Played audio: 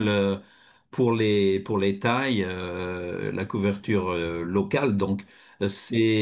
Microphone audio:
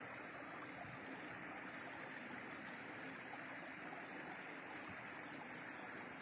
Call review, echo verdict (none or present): none